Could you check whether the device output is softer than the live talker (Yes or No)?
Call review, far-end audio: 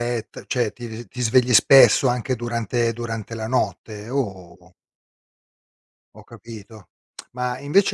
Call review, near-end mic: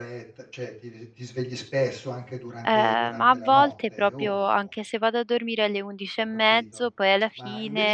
Yes